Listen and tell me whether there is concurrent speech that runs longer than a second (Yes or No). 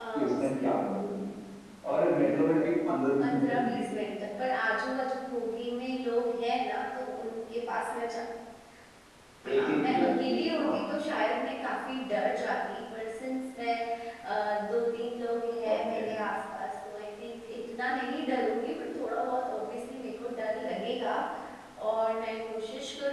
Yes